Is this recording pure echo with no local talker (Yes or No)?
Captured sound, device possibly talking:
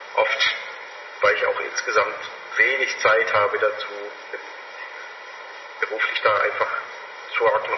Yes